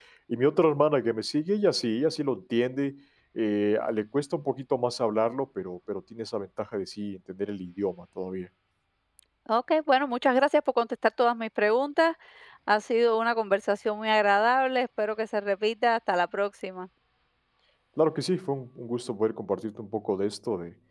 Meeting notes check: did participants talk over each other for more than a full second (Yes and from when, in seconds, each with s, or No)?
No